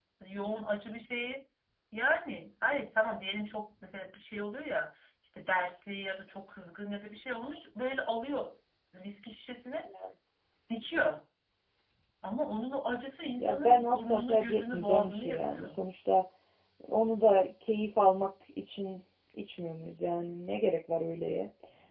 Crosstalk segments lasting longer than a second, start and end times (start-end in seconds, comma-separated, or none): 13.4-15.8